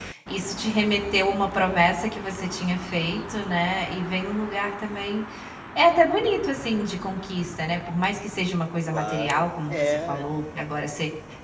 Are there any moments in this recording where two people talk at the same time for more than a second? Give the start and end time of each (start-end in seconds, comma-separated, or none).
8.9-10.3